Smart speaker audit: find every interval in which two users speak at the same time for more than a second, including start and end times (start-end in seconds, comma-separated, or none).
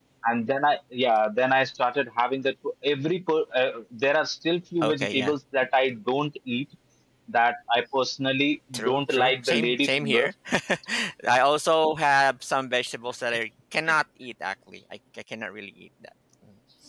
8.7-10.3